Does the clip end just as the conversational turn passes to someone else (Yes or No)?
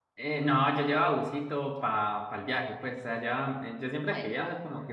No